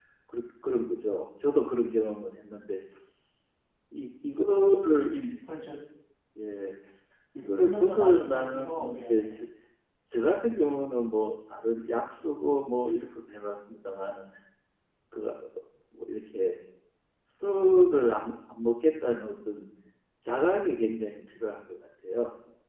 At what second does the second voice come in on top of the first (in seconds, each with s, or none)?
7.4 s